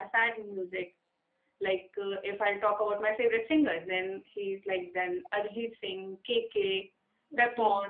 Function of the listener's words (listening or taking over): listening